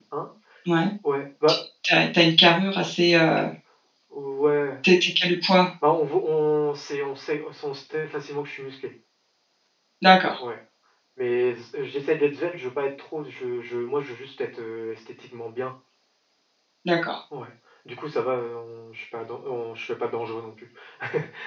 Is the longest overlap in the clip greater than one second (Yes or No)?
No